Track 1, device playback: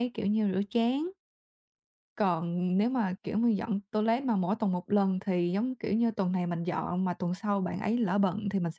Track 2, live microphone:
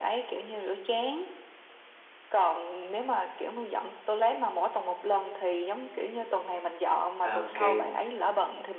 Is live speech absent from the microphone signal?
No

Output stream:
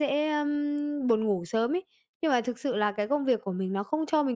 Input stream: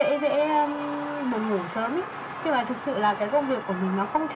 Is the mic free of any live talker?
Yes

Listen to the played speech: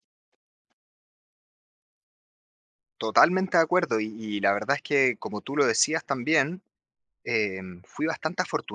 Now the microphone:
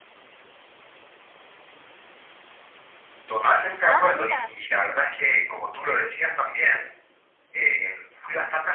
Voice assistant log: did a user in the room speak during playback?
Yes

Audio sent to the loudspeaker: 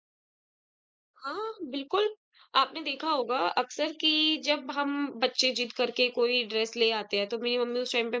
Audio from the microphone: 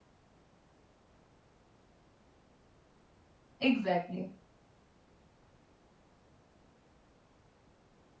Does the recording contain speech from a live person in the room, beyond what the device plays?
Yes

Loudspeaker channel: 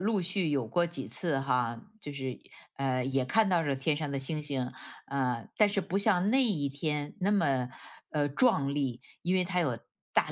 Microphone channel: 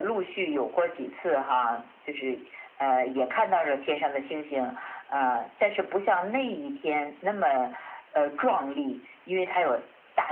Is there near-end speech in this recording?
No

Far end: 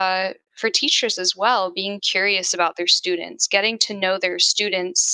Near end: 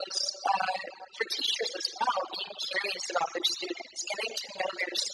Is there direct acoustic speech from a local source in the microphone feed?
No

